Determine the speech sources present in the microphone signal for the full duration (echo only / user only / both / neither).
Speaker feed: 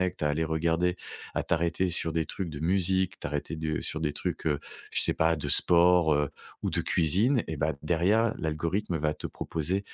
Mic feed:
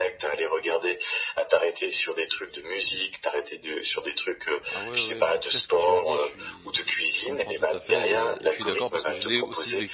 both